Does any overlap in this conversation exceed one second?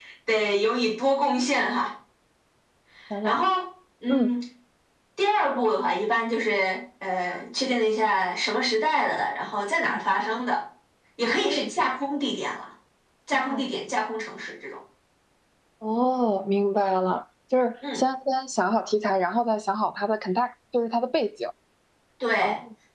No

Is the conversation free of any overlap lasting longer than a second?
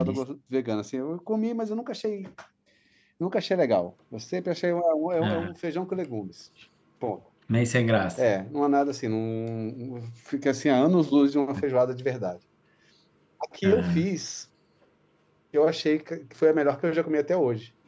Yes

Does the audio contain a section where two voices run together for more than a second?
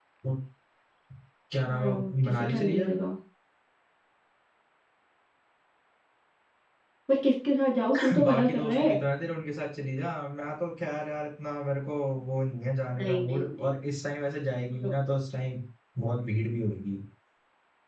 Yes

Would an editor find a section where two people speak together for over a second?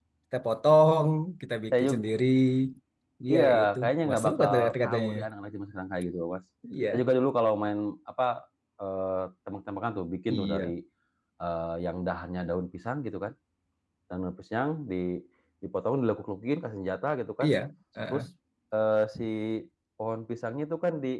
Yes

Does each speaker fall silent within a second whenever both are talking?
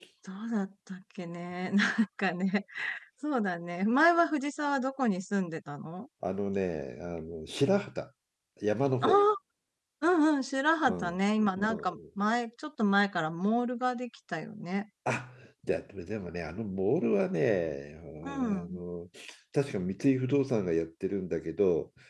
Yes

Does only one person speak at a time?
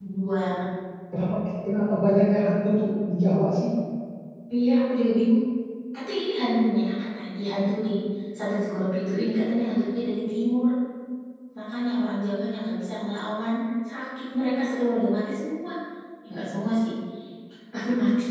Yes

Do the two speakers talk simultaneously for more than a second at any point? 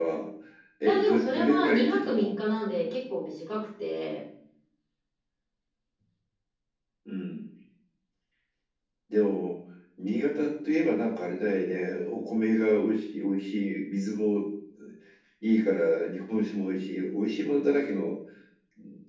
Yes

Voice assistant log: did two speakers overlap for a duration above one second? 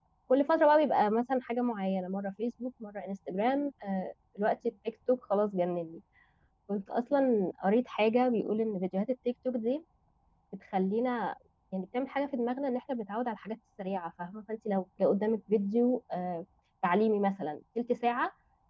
No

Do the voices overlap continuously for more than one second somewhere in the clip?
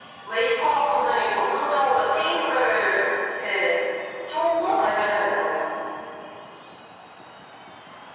No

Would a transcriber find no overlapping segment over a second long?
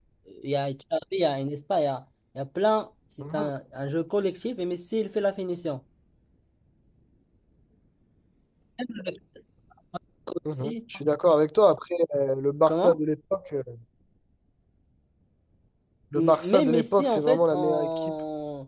No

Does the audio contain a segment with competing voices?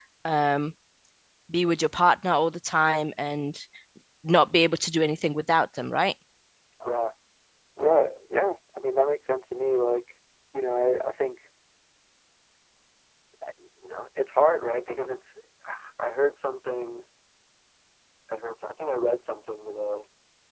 No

